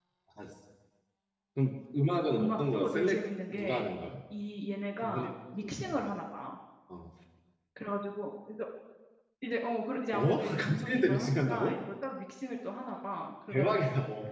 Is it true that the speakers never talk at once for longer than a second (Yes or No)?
No